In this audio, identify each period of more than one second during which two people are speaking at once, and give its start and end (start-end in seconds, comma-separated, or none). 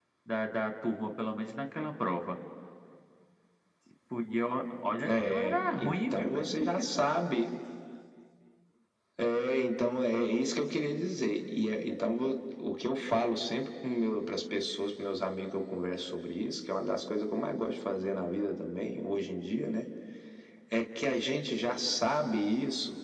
5.0-6.3